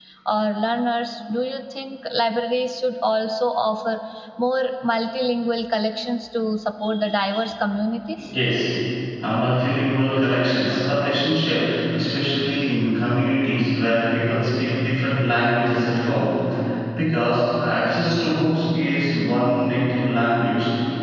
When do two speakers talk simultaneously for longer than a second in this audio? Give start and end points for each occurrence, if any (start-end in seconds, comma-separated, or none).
none